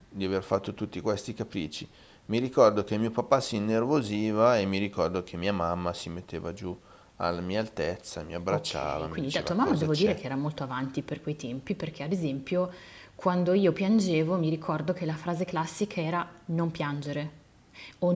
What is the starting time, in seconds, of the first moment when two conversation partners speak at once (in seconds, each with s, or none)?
8.5 s